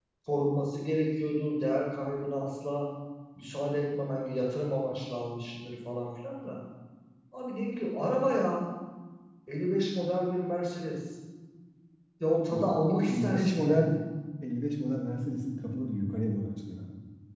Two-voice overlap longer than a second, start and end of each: 12.5-13.9

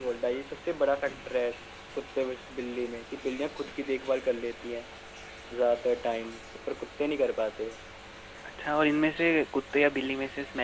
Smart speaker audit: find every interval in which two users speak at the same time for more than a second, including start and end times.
none

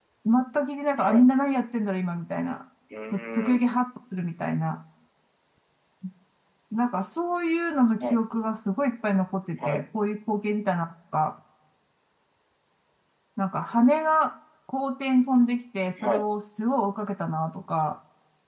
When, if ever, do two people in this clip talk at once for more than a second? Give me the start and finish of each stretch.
none

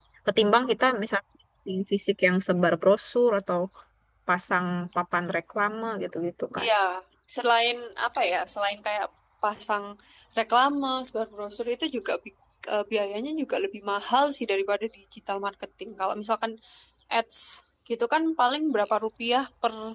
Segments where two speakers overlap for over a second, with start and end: none

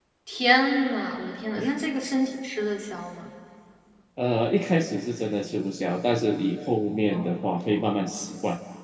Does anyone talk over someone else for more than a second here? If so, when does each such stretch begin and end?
none

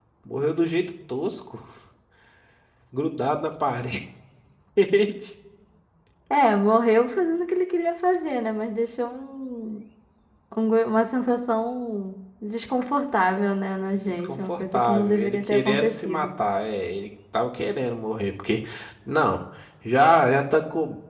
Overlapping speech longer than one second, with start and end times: 14.1-16.3

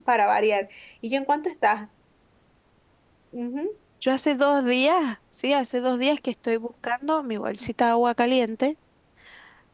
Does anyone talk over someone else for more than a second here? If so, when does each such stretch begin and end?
none

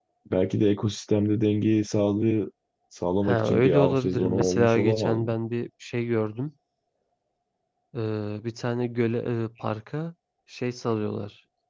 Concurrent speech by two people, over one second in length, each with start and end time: 3.2-5.3

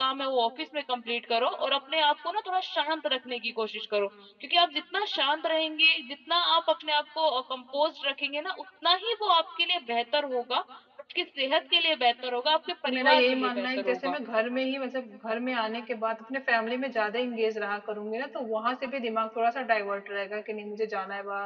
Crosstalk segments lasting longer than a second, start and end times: 12.8-14.1

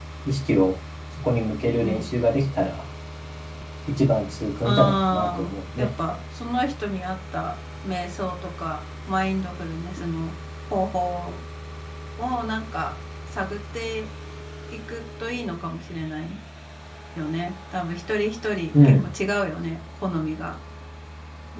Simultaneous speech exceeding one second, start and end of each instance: 4.6-5.9

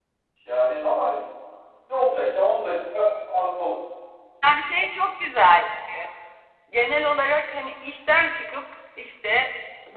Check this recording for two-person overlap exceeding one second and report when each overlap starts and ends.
none

